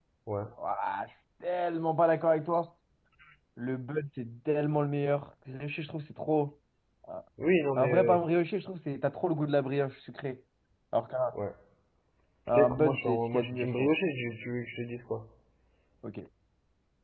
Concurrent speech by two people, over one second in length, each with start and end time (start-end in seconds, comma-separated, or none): 12.5-13.9